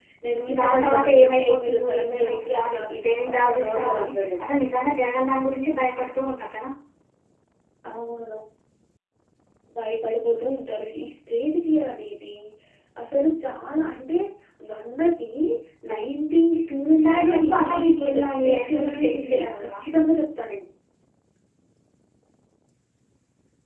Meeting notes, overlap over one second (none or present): present